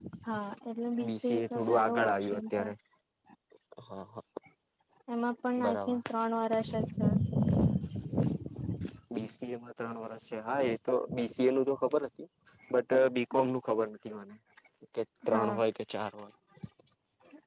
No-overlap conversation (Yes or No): No